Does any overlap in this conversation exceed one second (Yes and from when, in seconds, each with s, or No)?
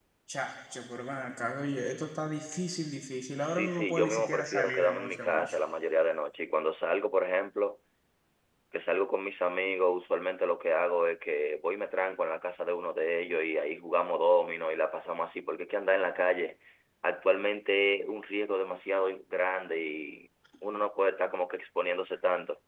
Yes, from 3.5 s